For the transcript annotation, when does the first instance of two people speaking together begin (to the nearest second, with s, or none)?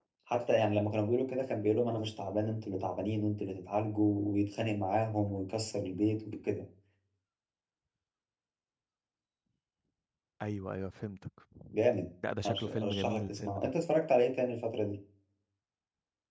12 s